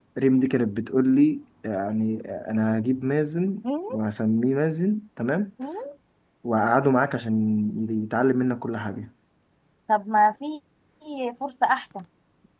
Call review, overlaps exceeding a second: none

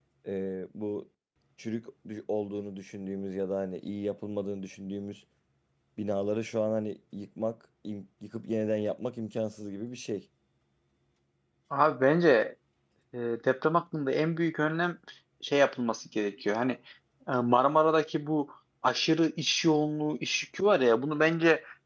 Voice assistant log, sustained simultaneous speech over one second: none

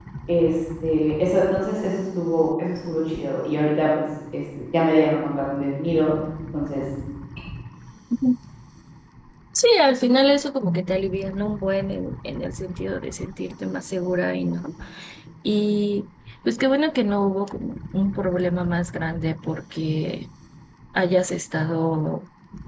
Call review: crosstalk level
none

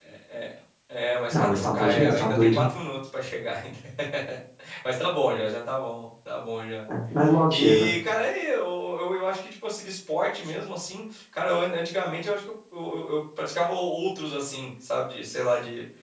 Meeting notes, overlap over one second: present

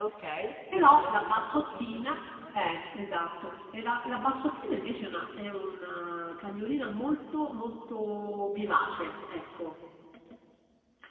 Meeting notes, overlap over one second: present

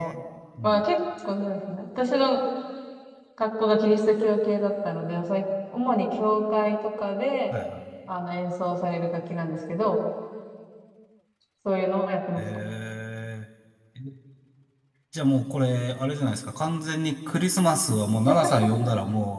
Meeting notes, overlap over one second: none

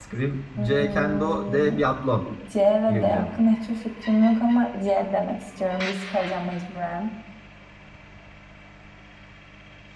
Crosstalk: present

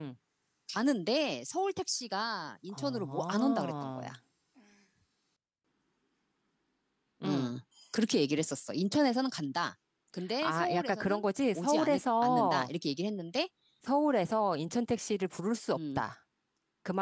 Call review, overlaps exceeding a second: present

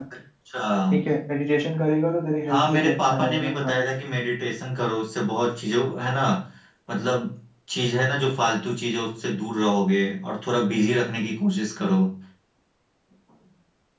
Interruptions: present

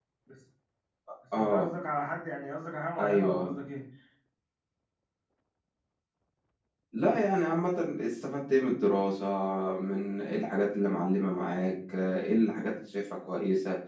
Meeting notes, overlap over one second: none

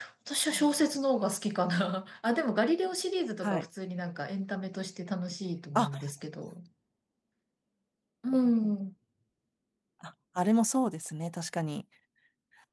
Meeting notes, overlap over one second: none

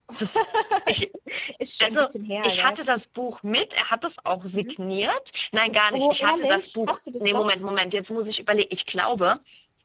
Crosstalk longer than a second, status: present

